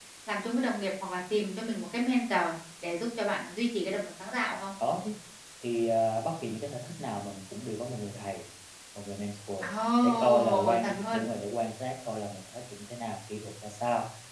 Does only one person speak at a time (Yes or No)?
No